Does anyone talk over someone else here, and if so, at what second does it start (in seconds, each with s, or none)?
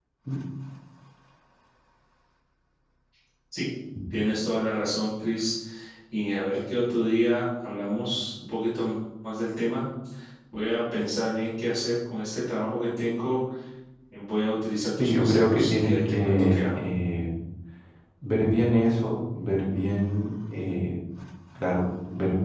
15.0 s